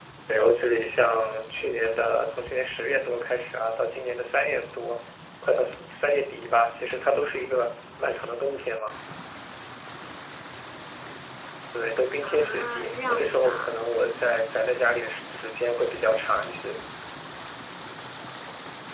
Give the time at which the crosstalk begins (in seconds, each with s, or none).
12.2 s